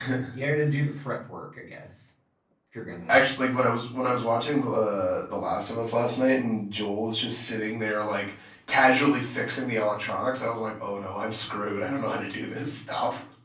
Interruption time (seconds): none

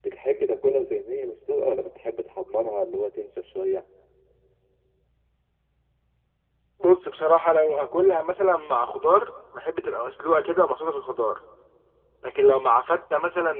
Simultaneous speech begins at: none

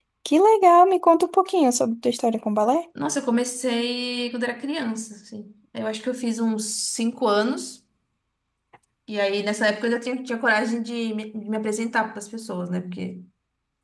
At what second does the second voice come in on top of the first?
none

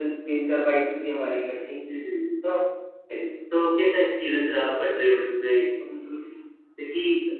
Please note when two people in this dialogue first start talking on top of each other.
none

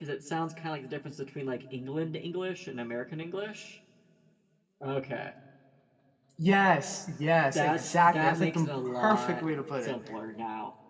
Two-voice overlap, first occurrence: 7.5 s

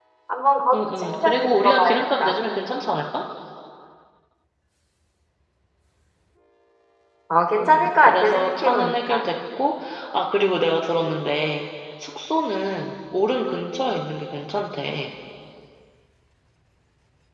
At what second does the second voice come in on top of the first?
0.7 s

